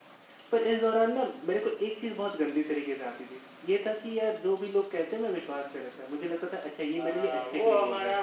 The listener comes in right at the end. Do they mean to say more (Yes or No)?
Yes